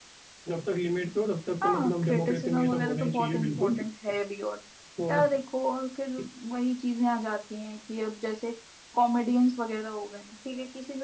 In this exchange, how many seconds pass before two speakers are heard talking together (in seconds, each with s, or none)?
1.6 s